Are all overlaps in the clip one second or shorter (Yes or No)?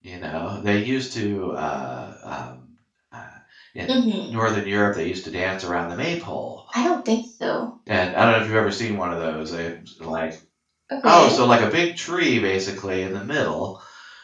Yes